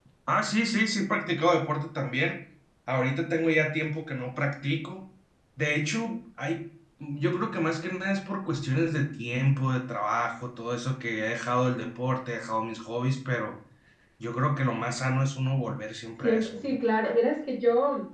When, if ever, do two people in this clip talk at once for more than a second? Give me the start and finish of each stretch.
none

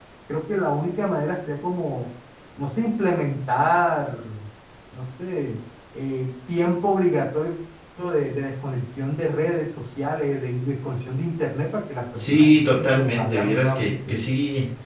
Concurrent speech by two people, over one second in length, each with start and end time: 12.2-14.2

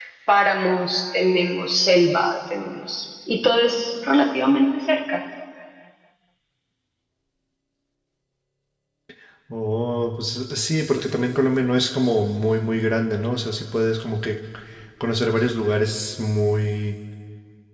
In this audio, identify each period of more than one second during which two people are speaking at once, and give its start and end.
none

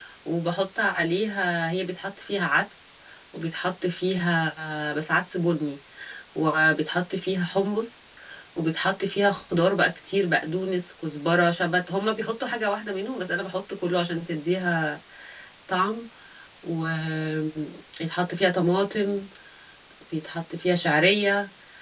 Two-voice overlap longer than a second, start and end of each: none

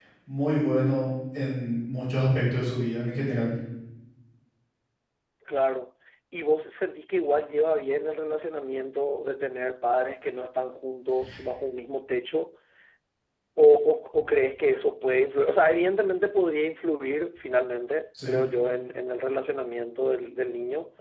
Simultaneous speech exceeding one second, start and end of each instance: none

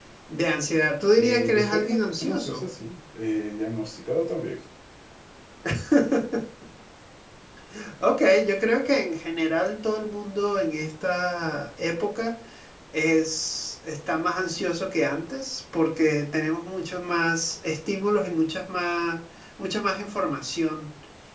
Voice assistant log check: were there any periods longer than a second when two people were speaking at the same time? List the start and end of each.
1.1-2.7

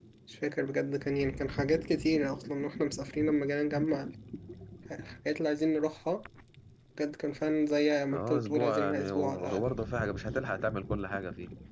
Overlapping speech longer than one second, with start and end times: 8.1-9.7

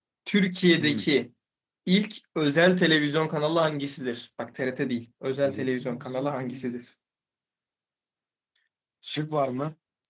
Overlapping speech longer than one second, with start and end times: 5.4-6.7

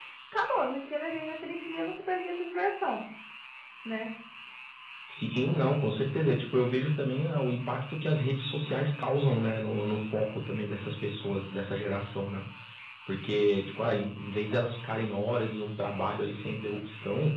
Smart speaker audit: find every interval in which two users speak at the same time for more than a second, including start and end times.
none

